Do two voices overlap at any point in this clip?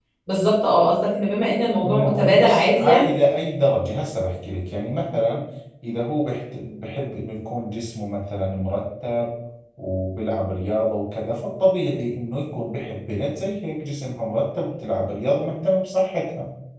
Yes, from 1.8 s

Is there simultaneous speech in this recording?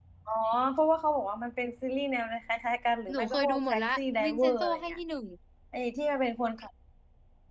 Yes, from 3.1 s

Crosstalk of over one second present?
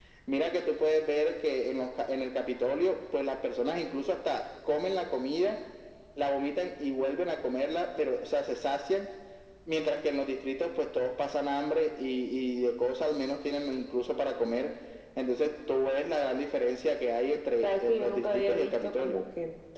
Yes, from 17.6 s

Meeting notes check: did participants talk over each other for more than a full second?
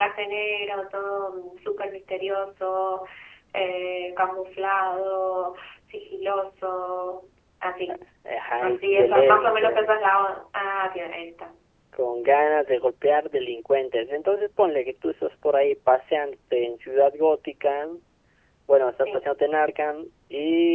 Yes, from 8.6 s

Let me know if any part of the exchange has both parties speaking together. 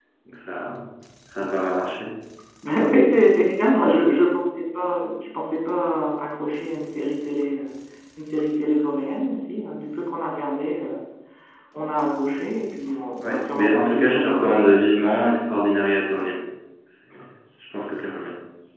Yes, from 13.2 s

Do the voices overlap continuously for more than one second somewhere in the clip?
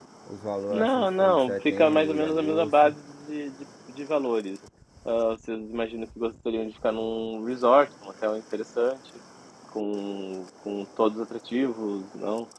Yes, from 0.7 s

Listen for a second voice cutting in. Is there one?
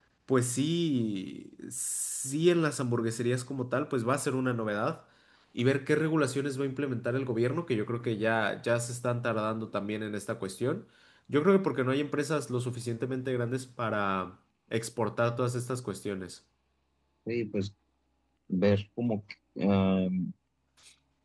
No

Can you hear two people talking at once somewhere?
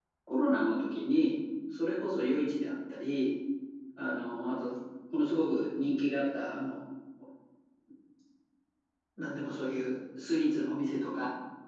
No

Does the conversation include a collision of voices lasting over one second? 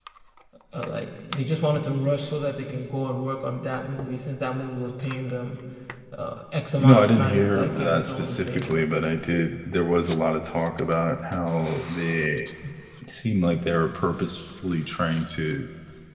Yes, from 6.8 s

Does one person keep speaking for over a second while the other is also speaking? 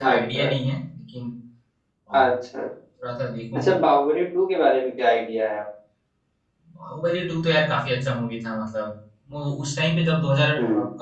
No

